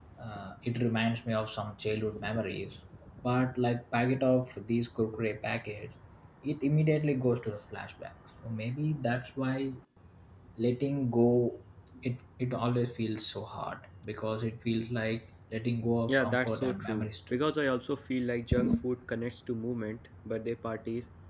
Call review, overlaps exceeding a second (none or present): present